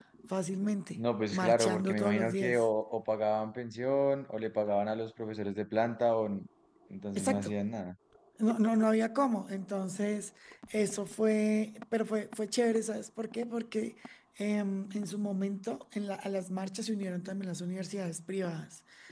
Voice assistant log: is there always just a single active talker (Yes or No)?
No